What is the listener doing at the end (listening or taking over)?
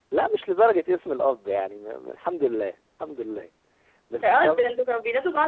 taking over